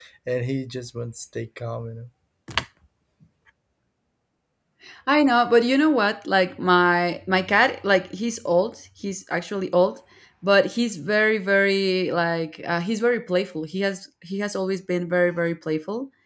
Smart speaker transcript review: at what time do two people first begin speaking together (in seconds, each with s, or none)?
none